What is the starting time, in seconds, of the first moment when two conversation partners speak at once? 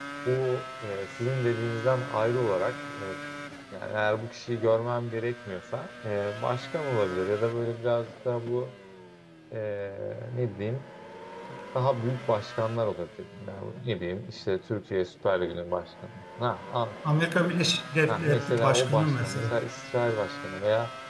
18.1 s

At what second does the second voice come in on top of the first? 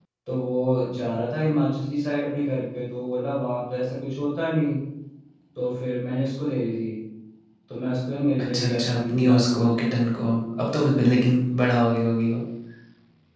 8.4 s

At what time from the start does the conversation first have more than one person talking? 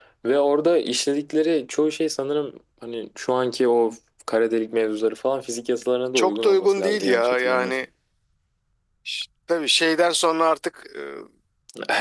6.2 s

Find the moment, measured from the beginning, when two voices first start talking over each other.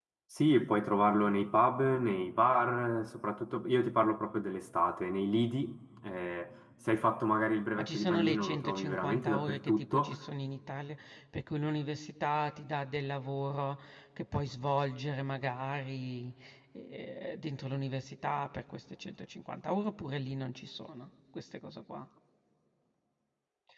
7.8 s

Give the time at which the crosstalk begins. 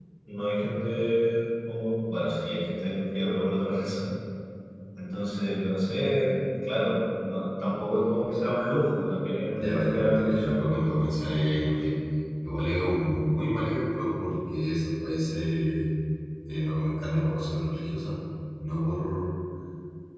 9.6 s

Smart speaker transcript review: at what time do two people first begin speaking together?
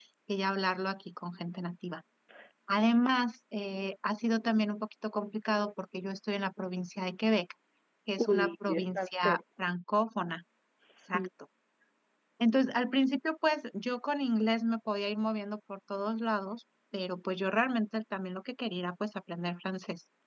8.2 s

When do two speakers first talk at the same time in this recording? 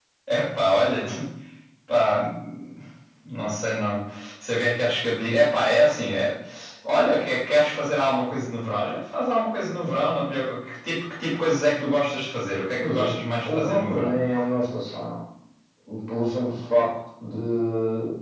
12.8 s

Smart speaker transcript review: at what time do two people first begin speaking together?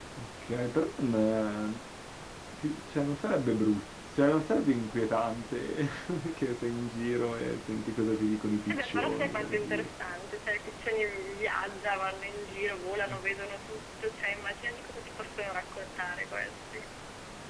8.7 s

